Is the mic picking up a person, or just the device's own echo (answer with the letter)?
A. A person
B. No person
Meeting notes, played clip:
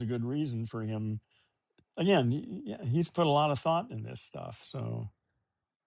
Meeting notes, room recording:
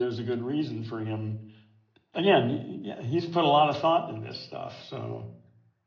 B